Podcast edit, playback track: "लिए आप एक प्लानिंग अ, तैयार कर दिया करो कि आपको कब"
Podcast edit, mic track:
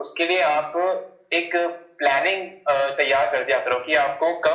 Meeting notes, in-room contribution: none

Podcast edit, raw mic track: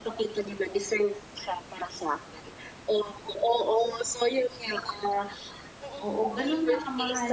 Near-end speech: present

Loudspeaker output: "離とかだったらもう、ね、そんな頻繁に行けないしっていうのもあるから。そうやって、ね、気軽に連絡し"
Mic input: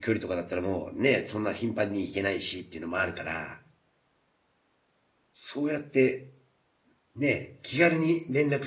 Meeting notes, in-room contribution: none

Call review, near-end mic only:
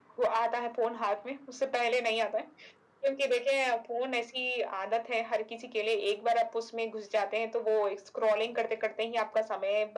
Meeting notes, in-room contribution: none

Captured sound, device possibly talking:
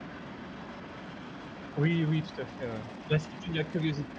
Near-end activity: present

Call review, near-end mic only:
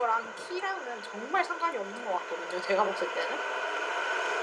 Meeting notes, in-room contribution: none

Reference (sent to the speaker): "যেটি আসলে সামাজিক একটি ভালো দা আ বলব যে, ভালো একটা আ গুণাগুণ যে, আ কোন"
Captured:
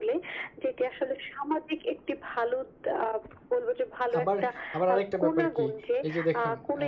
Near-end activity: present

